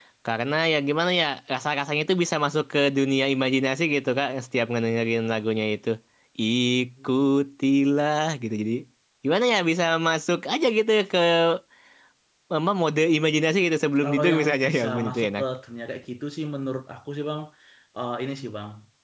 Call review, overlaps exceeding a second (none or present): present